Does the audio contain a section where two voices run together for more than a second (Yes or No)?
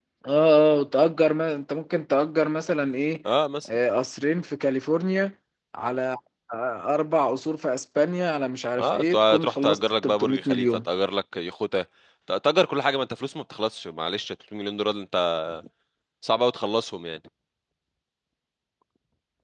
Yes